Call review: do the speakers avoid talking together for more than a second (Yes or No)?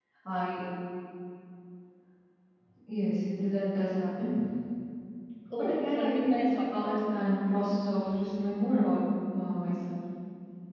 No